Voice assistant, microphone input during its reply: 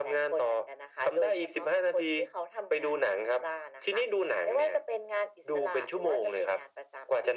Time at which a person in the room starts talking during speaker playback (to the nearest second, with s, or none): none